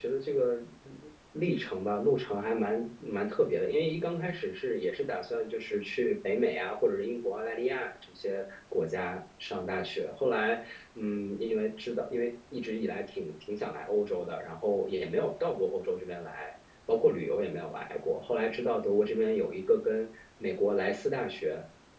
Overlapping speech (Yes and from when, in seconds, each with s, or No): No